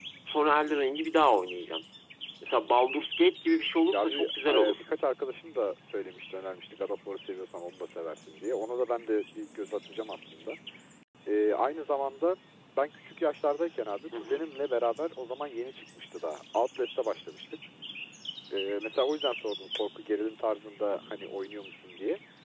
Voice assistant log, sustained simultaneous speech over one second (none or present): none